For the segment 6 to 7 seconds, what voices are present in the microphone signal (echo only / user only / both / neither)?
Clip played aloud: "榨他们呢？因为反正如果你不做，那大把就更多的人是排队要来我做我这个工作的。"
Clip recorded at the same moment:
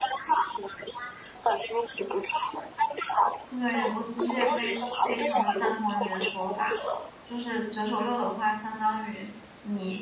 both